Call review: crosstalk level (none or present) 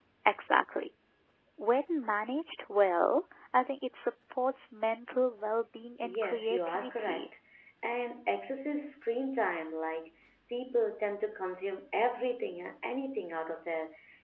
present